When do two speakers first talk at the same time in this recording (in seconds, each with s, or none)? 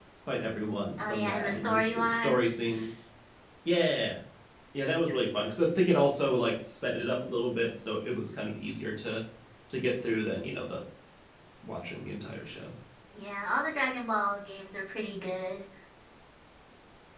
1.0 s